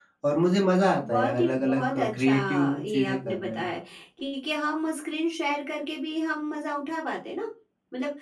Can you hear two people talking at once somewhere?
Yes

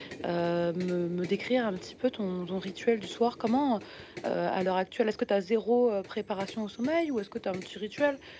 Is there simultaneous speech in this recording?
No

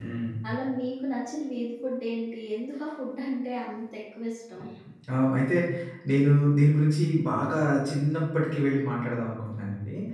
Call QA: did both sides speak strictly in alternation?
Yes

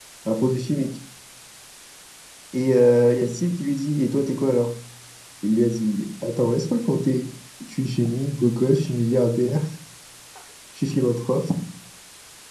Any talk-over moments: No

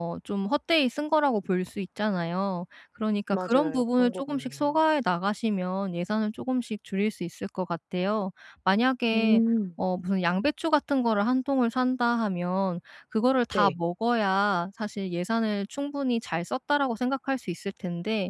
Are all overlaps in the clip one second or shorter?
No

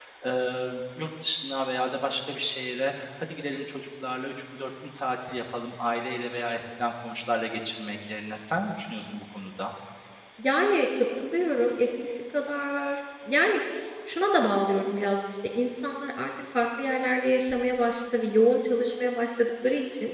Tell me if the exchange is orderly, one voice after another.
Yes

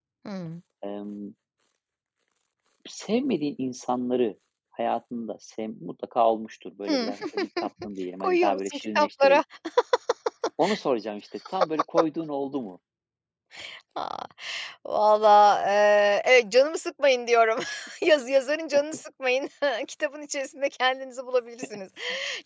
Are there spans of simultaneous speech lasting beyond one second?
Yes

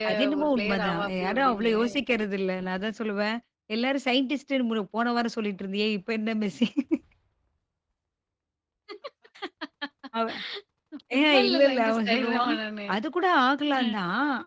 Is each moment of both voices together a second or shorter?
No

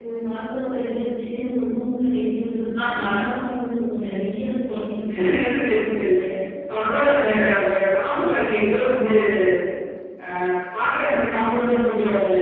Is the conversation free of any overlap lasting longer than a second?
Yes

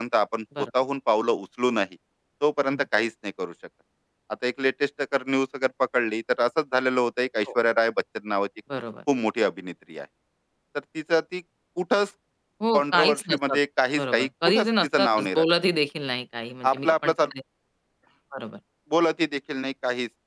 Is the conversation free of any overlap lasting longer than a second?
No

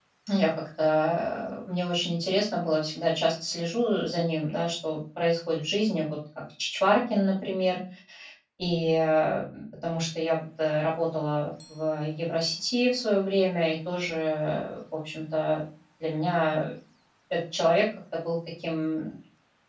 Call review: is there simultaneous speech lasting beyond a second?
No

